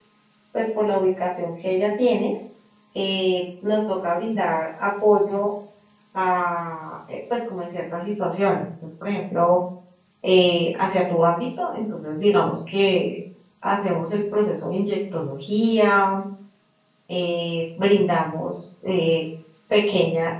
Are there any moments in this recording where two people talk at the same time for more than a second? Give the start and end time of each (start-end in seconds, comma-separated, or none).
none